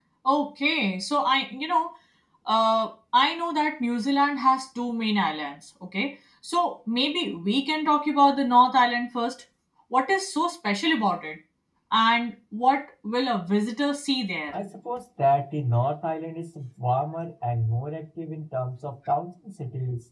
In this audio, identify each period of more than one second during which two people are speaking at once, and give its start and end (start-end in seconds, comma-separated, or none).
none